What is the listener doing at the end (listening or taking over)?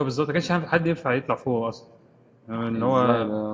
taking over